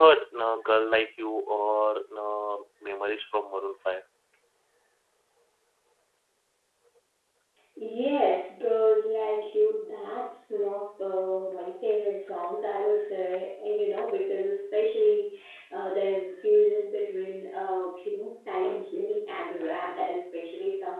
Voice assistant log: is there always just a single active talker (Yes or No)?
Yes